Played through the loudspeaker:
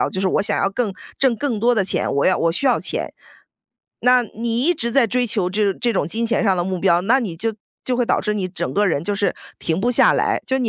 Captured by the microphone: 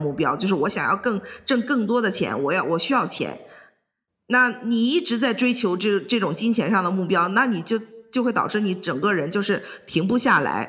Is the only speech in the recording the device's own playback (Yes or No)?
Yes